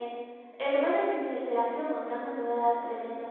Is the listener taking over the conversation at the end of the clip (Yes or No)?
Yes